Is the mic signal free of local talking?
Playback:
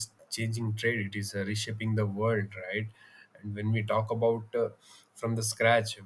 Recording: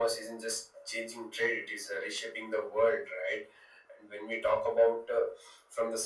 Yes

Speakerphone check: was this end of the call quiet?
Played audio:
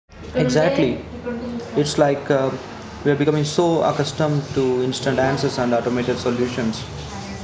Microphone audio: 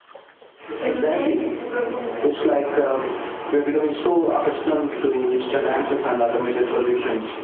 Yes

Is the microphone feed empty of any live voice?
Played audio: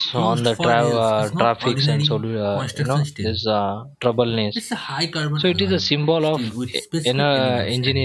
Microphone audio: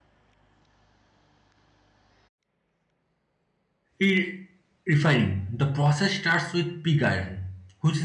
No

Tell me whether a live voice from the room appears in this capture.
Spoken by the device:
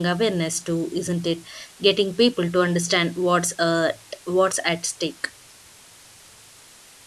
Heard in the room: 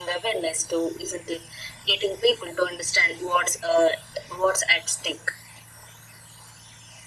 No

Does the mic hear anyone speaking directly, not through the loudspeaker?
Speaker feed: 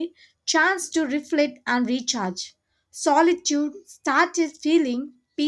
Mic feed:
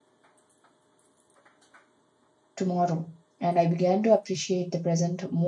Yes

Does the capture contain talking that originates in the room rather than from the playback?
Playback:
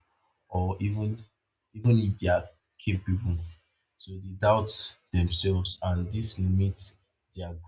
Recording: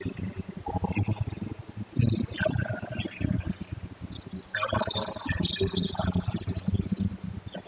No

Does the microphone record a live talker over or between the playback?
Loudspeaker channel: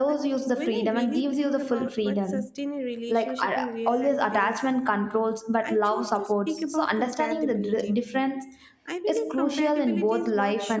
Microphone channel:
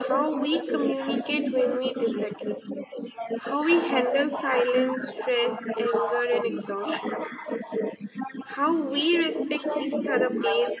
Yes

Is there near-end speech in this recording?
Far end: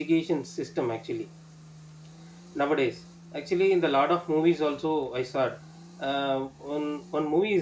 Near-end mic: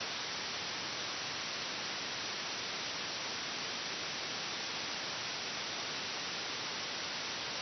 No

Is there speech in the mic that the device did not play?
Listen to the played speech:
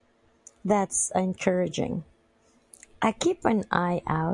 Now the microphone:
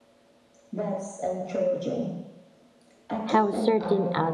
Yes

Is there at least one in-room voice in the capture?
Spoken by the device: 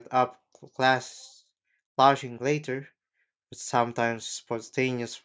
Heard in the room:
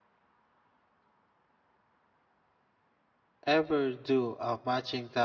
Yes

